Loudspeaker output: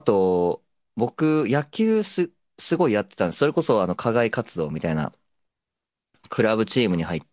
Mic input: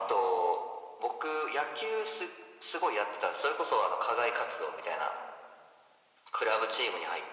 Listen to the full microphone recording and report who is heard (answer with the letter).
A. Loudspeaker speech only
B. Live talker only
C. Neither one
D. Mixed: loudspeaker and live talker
A